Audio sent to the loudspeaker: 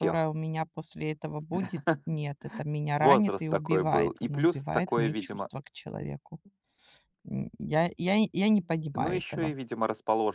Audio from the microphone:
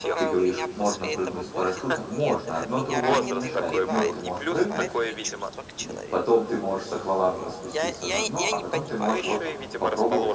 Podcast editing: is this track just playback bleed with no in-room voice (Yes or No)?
No